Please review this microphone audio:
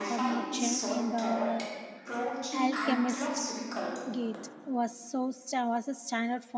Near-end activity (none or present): present